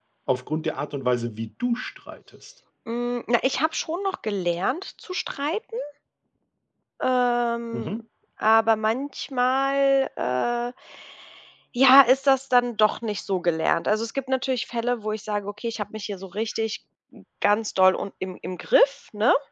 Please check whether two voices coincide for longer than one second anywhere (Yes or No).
No